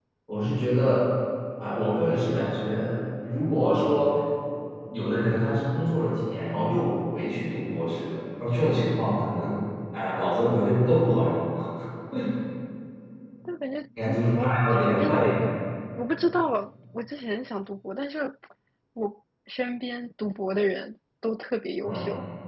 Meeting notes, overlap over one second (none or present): present